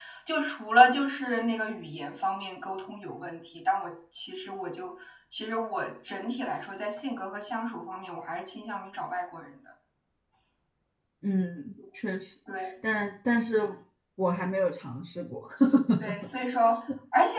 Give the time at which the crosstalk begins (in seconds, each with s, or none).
none